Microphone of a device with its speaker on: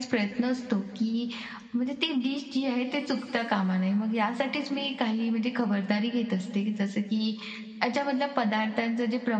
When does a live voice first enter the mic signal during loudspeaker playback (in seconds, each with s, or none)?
none